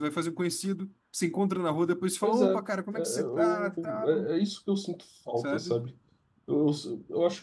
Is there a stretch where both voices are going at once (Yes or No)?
Yes